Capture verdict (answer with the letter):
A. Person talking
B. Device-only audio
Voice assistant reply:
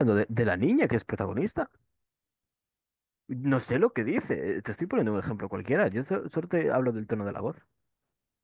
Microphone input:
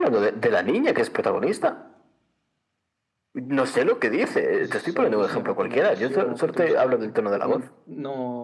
A